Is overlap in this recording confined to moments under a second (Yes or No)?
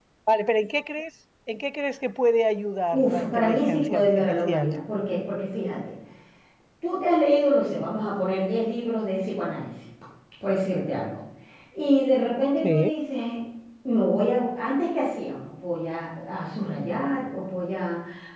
No